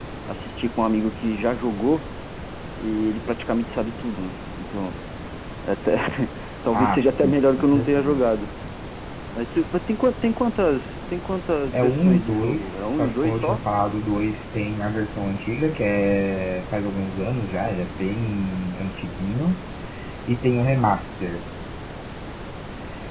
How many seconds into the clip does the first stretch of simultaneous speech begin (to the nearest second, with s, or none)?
7 s